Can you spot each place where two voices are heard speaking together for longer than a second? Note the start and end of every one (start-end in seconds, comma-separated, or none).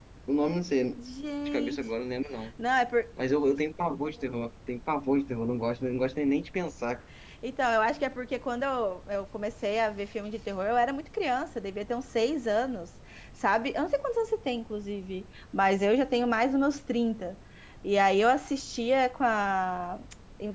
none